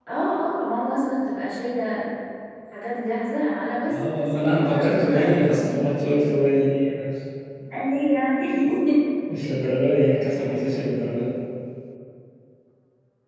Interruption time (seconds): 3.9 s

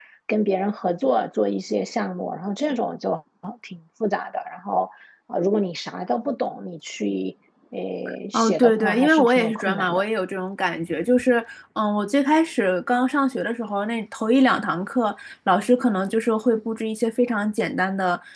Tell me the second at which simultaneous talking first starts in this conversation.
8.3 s

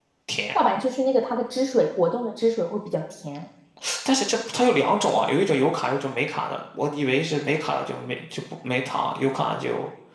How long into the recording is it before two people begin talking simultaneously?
none

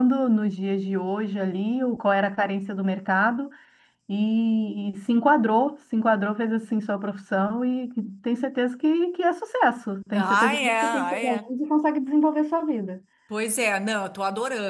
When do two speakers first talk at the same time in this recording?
10.1 s

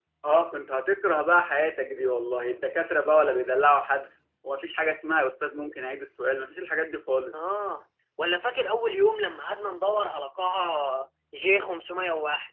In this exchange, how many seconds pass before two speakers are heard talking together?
none

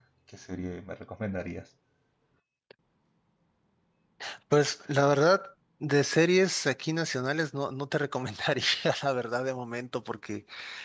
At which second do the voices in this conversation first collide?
none

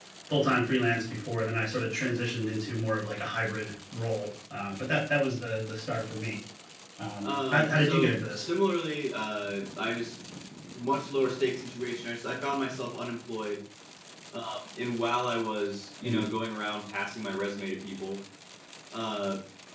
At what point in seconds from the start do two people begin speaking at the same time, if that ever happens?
7.2 s

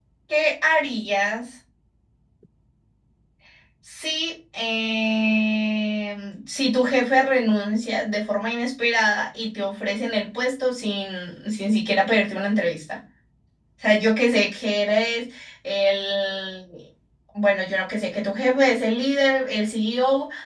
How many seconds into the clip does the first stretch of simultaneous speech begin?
none

